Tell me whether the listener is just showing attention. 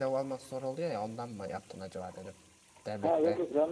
No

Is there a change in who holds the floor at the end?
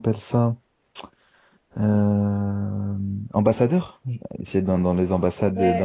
Yes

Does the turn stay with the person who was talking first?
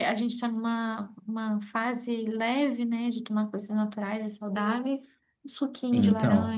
No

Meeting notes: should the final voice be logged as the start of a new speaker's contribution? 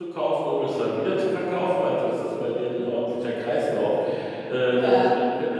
No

